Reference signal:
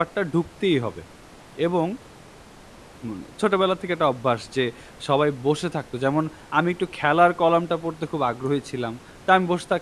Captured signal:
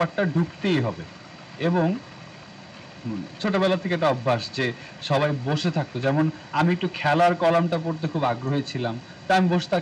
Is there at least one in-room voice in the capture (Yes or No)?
No